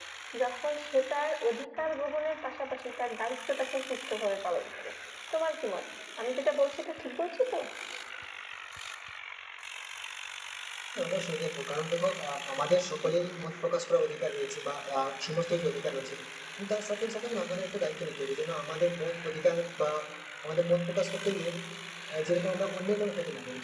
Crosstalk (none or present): none